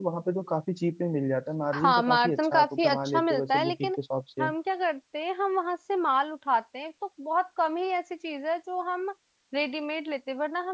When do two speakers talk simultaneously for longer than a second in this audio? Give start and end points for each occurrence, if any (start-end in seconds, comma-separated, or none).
1.8-3.9